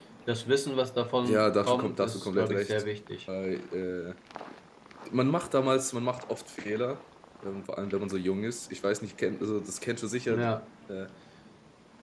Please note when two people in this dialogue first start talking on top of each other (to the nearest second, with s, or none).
1 s